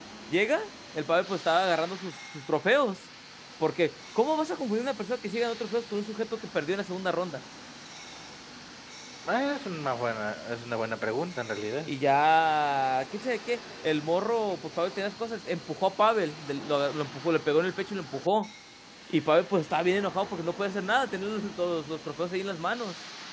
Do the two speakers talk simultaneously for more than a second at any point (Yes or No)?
No